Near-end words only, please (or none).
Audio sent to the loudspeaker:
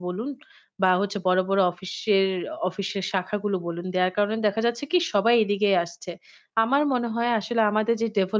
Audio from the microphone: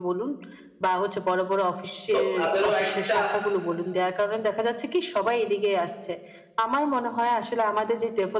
সো তাদেরও একটা